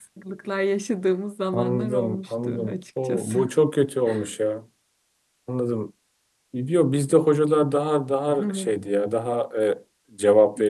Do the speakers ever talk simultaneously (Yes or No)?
Yes